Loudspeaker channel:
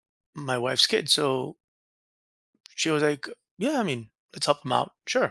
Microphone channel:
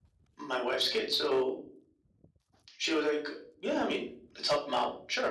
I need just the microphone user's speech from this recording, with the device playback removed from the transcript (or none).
none